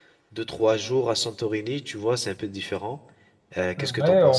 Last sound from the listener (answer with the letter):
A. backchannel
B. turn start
B